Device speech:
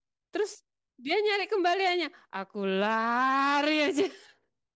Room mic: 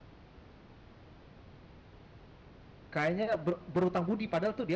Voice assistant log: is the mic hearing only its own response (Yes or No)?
No